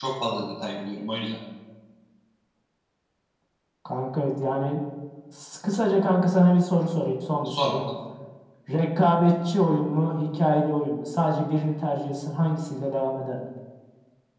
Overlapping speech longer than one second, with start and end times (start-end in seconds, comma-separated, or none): none